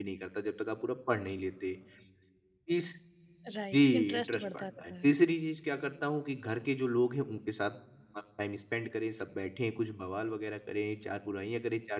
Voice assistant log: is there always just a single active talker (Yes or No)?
No